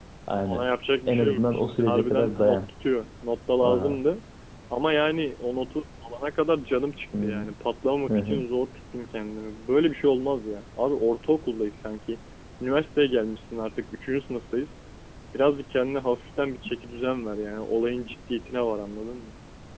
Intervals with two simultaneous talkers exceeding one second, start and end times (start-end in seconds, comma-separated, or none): 1.1-2.6